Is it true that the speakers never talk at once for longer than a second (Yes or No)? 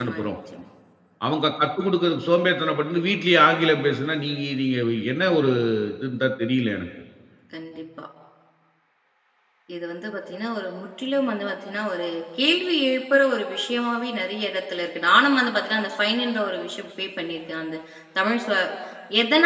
Yes